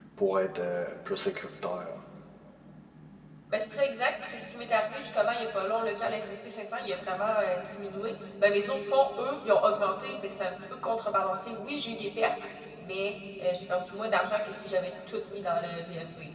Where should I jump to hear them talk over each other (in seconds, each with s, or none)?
none